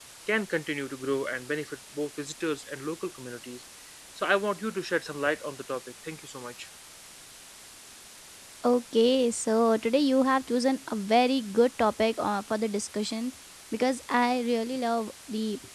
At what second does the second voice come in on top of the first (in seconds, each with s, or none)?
none